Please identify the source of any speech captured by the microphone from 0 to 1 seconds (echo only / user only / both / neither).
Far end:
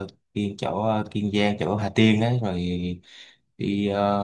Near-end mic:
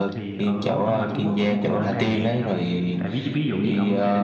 both